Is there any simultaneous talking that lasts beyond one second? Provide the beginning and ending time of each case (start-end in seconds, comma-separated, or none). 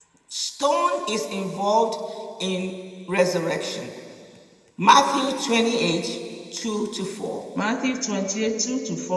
none